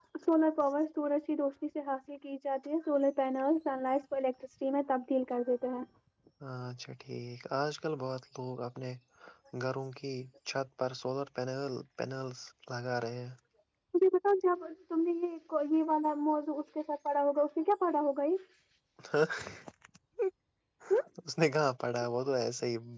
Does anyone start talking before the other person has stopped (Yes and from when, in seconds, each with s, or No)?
No